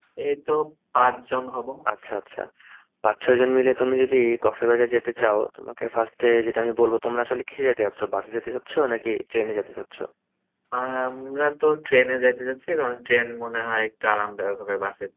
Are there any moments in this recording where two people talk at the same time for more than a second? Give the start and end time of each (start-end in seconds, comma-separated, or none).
none